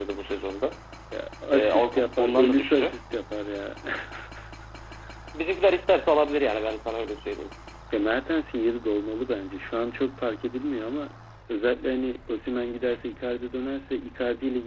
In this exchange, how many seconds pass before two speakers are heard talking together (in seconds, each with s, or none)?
1.5 s